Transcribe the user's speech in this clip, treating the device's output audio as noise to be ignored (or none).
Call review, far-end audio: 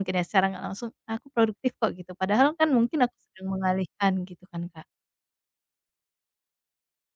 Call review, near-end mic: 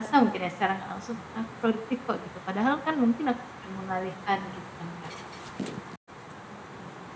none